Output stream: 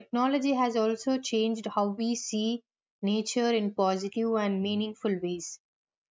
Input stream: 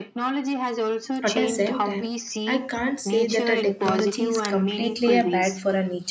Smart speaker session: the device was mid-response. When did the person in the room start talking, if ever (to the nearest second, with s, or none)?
1 s